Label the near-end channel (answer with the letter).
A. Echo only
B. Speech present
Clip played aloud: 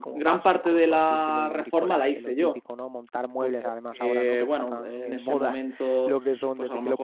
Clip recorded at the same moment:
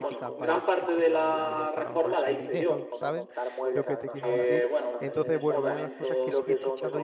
B